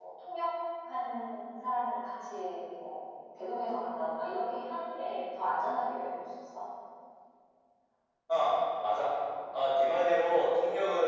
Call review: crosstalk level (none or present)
none